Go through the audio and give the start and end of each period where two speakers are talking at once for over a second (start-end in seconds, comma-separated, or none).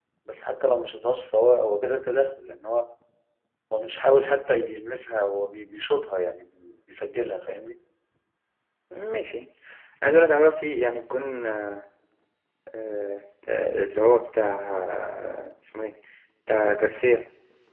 none